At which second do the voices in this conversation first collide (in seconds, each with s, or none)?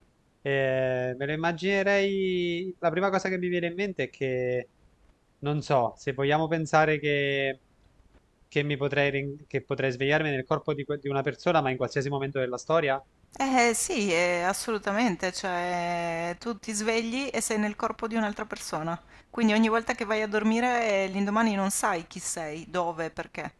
none